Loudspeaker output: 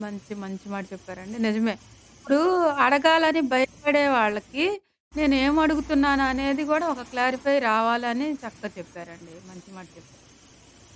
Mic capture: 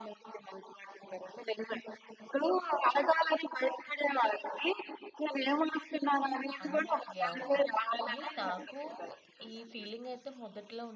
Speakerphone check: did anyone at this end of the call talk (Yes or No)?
Yes